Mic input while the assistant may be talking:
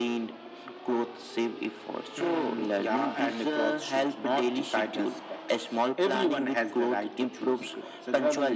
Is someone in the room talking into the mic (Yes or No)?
No